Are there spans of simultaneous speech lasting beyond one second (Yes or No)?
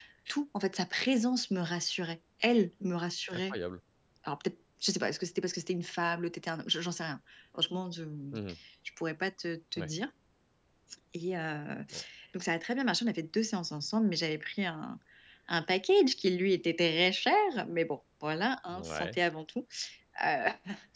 No